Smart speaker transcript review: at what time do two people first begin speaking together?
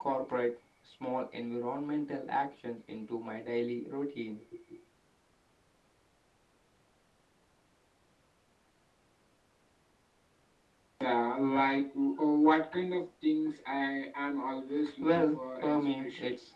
15 s

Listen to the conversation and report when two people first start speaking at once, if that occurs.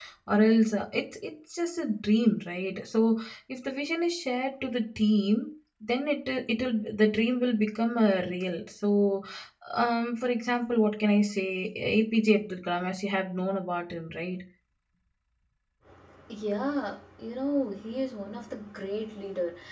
none

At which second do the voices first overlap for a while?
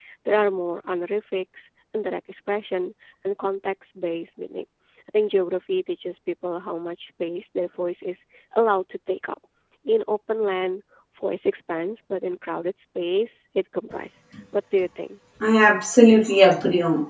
none

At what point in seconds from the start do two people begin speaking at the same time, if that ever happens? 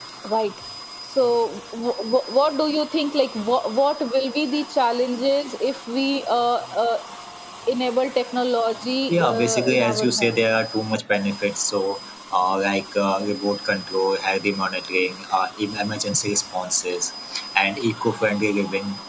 9 s

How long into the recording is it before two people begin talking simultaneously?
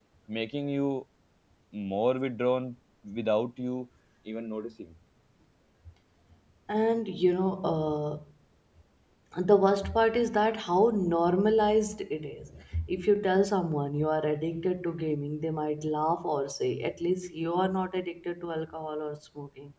none

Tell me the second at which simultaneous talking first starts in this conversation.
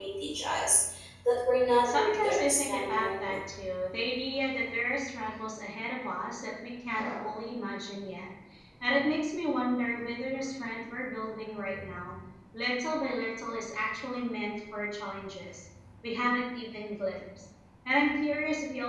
2 s

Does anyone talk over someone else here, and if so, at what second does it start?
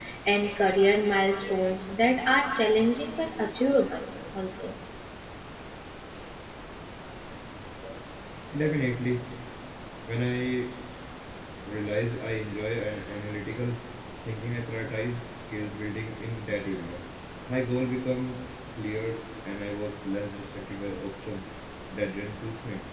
none

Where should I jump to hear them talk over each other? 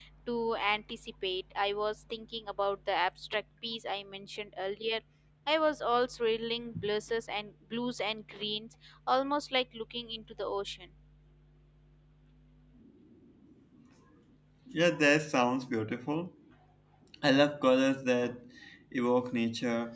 none

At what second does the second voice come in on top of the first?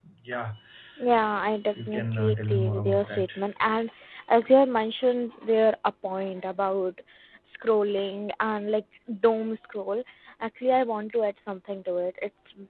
2 s

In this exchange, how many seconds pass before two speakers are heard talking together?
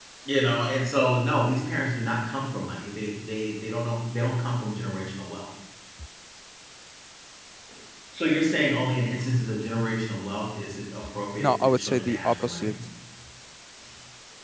11 s

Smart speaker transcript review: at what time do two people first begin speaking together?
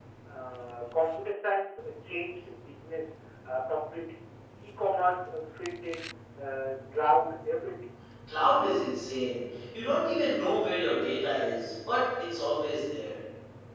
none

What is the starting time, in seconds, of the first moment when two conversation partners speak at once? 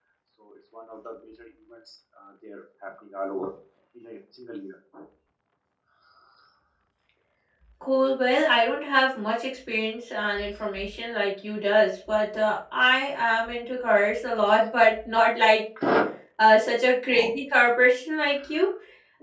none

